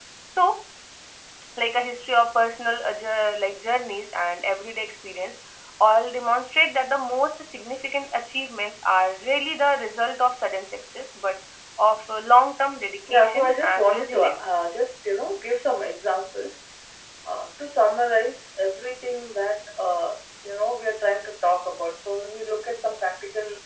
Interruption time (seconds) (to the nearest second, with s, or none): 13 s